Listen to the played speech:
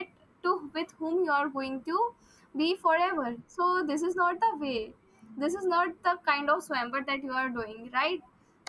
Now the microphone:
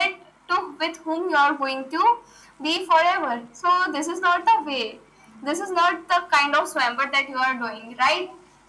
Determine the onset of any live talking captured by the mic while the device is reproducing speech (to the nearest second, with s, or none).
none